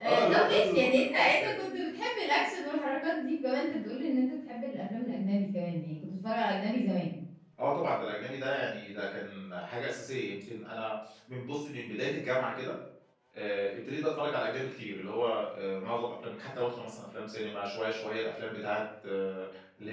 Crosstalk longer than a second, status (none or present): present